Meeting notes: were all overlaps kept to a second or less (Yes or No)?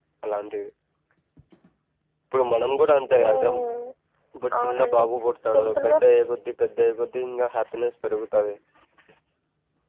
Yes